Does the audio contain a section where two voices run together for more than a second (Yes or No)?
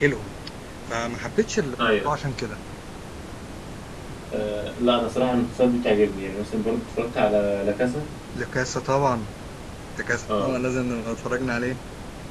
No